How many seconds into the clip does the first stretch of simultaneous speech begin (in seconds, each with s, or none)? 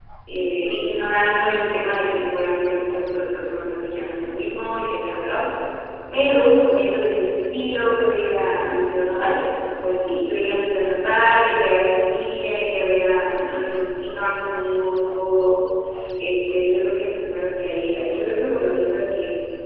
none